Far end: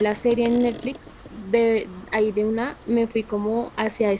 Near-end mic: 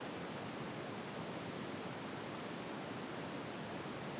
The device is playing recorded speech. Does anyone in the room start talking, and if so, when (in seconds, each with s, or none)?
none